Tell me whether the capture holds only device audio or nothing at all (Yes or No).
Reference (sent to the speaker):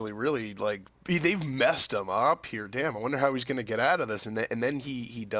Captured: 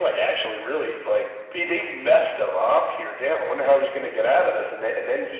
Yes